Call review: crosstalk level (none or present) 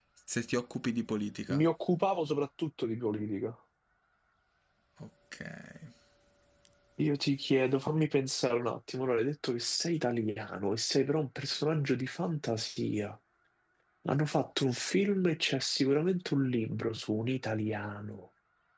none